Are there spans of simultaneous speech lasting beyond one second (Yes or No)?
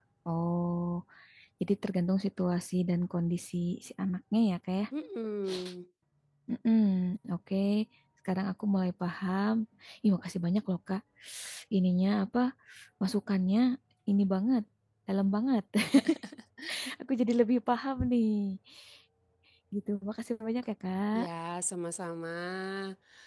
No